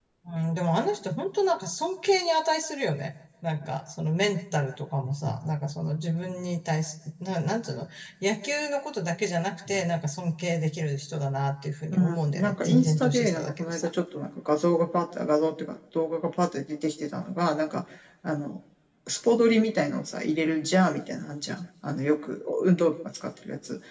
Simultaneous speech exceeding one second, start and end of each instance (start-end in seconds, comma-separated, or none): 11.9-13.9